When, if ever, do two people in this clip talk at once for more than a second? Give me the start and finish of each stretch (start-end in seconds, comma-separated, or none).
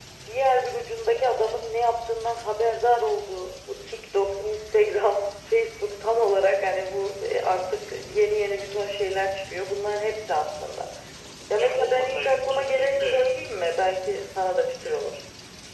11.6-13.2